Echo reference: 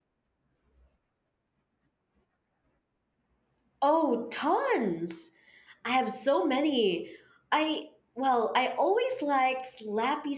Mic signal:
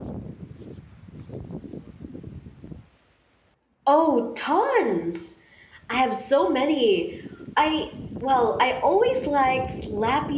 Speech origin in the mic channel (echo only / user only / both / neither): echo only